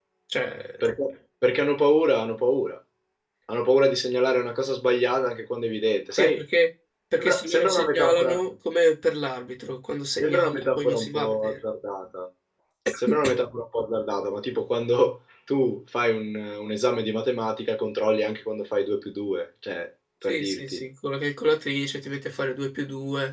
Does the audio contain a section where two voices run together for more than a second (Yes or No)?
Yes